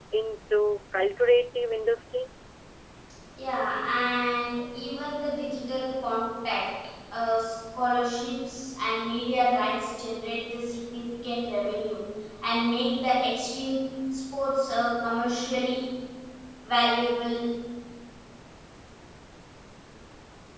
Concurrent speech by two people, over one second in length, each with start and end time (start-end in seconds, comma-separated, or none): none